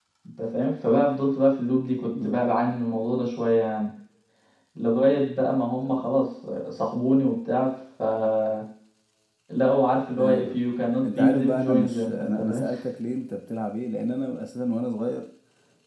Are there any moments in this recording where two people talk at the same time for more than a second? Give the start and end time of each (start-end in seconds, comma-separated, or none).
11.0-12.6